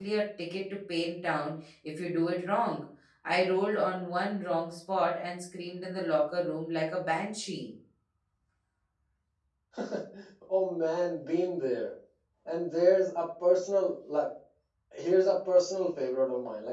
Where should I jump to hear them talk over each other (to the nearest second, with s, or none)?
none